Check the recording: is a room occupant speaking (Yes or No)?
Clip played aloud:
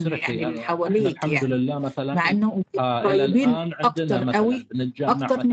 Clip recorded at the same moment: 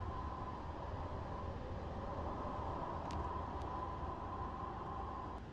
No